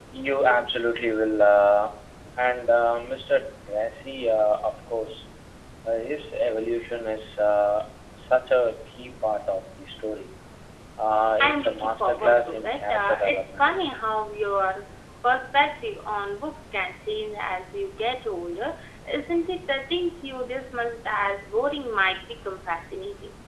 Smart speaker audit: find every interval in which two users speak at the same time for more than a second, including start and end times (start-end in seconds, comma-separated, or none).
11.4-13.7